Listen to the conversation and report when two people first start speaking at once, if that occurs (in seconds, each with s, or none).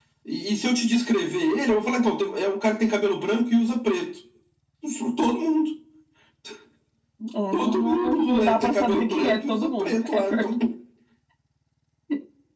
7.5 s